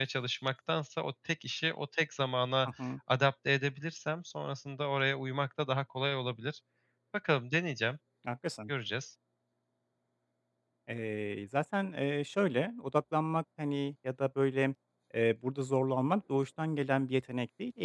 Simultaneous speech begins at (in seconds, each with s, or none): none